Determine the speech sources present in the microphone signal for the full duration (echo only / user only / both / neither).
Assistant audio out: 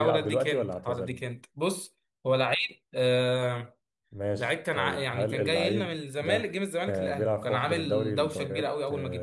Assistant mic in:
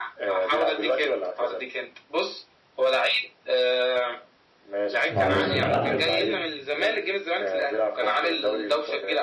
both